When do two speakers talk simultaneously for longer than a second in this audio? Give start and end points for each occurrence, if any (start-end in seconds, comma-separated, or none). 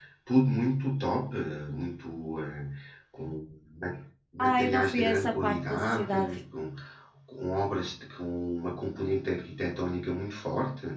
4.4-6.2